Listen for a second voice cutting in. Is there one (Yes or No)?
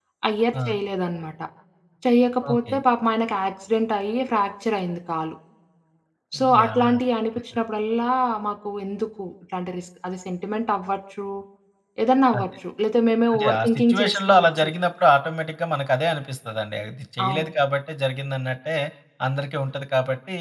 Yes